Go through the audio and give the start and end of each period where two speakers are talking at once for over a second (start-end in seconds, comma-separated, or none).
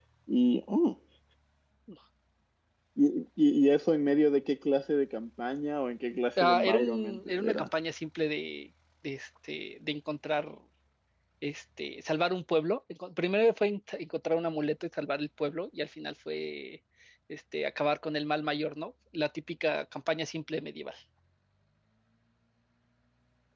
6.4-7.7